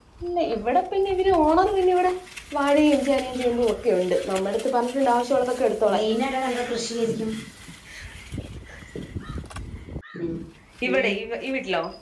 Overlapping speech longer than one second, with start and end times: none

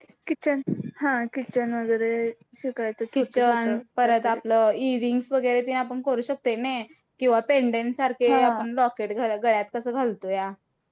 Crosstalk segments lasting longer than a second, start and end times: 3.1-4.4

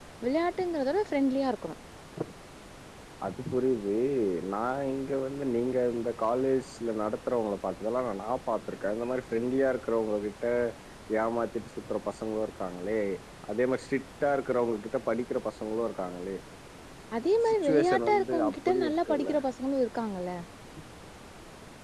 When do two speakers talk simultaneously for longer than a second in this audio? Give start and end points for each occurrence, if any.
17.5-19.3

